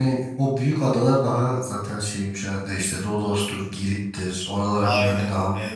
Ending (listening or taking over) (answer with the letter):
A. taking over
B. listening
A